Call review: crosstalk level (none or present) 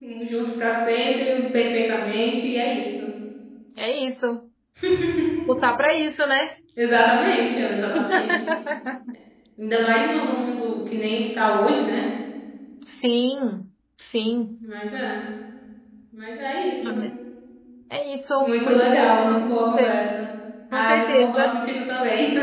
present